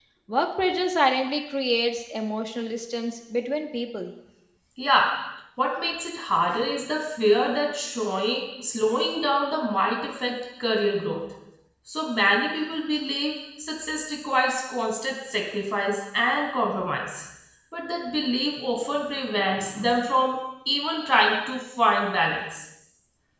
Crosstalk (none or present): none